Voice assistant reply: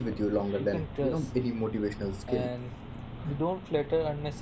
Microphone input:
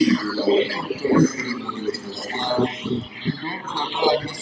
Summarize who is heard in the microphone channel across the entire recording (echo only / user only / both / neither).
echo only